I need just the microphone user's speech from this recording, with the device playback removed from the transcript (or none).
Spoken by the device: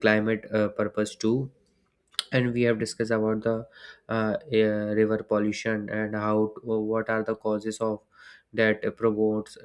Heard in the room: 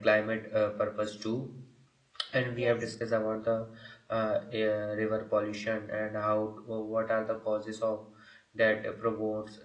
yes